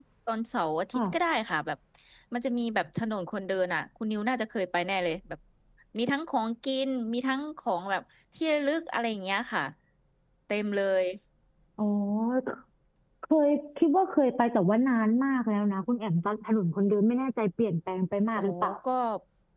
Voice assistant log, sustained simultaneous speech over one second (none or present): none